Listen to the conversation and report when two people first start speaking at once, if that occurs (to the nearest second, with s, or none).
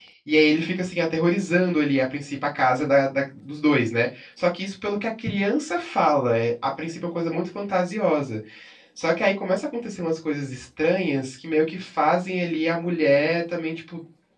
none